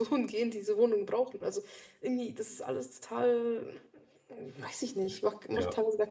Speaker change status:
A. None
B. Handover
B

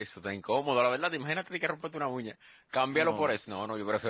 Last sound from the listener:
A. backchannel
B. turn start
A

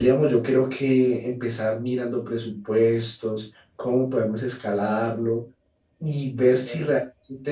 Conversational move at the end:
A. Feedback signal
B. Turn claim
A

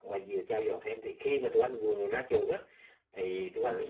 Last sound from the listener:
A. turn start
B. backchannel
B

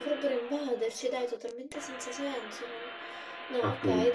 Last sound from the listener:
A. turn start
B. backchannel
B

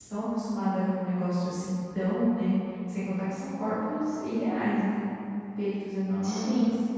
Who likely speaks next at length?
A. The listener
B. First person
B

